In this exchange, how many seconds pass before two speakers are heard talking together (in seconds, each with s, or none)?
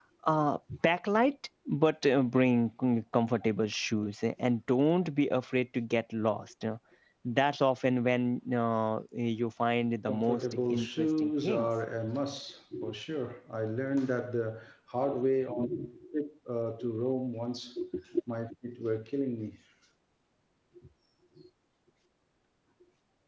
10.1 s